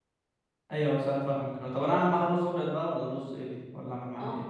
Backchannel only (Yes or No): No